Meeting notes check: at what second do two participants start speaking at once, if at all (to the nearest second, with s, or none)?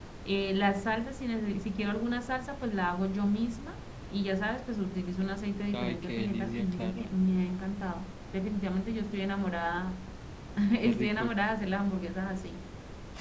6 s